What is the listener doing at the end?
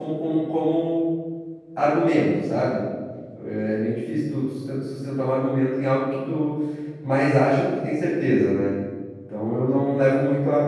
listening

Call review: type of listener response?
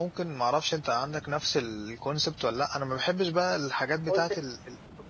taking over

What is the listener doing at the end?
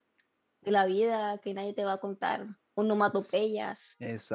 taking over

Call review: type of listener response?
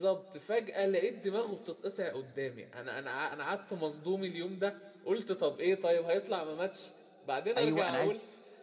taking over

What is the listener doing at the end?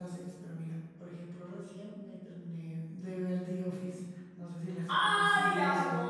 taking over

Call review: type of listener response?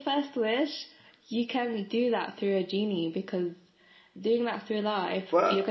taking over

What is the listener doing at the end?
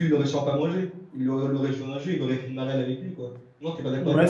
taking over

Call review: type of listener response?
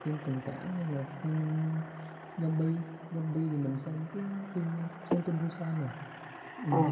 taking over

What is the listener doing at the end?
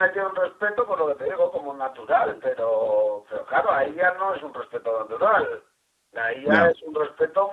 listening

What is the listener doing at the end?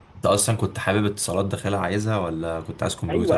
taking over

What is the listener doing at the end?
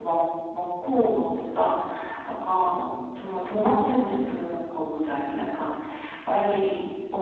listening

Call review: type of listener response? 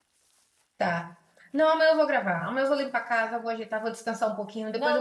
taking over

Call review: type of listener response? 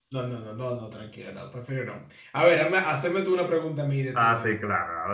taking over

